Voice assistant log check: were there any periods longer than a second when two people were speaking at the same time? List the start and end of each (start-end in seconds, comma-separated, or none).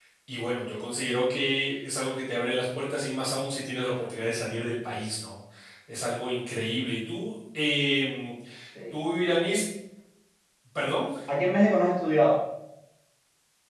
none